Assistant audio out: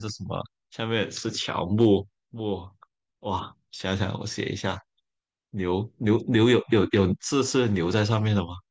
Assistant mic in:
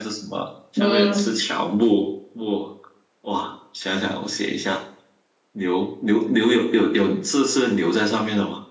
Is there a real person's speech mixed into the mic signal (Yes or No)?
Yes